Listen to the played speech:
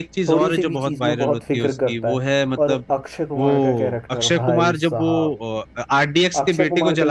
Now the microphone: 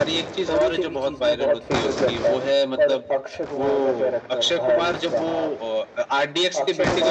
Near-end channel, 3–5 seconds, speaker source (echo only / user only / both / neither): echo only